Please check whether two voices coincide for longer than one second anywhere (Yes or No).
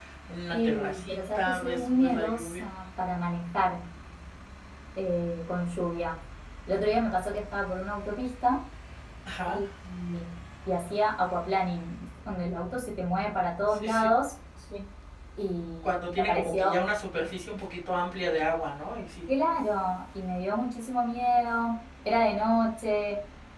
Yes